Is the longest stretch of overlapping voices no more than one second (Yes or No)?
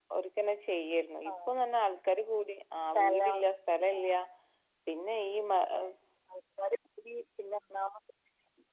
Yes